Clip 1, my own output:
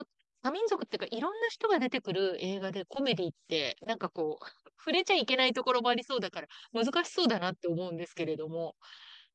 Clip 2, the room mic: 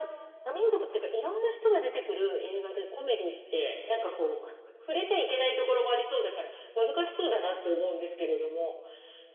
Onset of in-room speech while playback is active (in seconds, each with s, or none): none